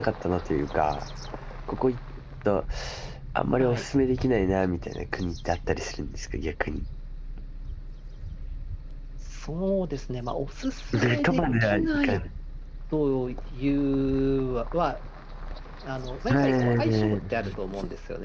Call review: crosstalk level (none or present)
present